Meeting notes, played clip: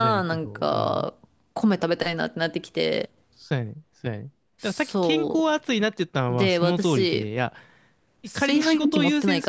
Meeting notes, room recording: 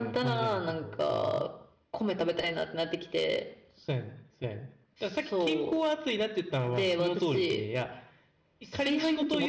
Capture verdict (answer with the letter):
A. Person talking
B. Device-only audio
B